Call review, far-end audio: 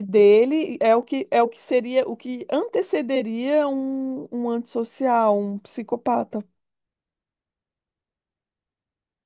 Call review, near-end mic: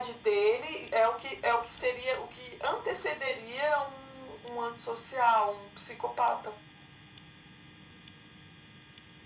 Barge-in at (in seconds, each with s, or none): none